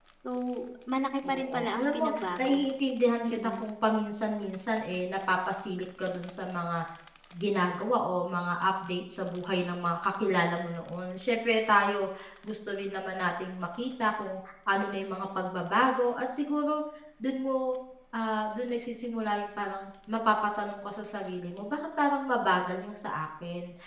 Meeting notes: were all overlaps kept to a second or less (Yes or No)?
No